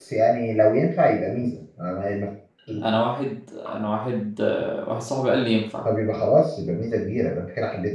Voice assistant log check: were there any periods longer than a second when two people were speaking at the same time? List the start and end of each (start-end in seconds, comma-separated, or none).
none